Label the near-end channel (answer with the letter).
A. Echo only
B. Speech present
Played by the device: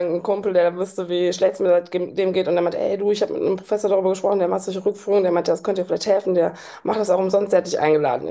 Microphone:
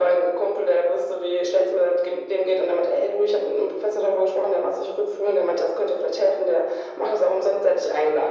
A